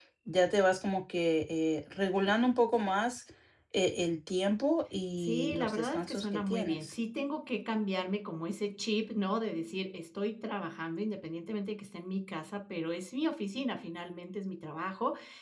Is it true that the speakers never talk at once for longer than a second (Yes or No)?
No